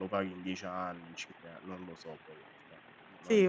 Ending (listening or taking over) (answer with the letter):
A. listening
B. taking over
B